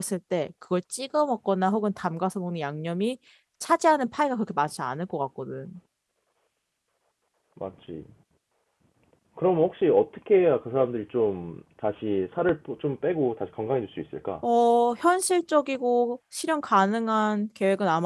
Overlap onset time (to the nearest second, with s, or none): none